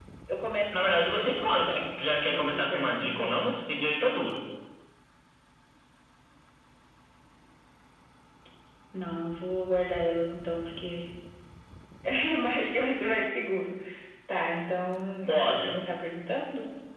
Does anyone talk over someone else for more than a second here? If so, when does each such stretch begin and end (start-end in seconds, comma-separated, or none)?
0.7-3.4